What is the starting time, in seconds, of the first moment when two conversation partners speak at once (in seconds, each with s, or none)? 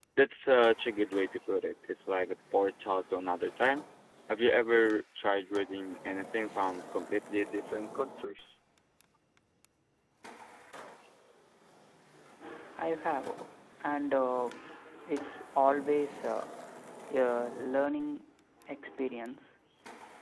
none